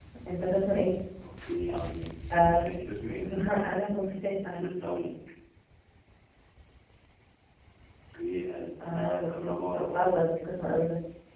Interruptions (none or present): present